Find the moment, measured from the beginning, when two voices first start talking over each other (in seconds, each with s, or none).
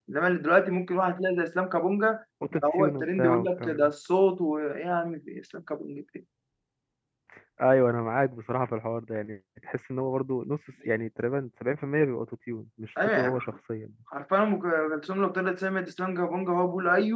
2.5 s